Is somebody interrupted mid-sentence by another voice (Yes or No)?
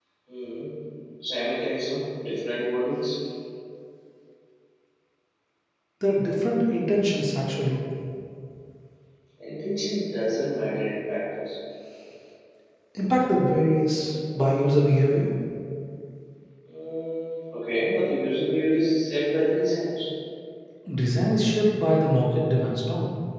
No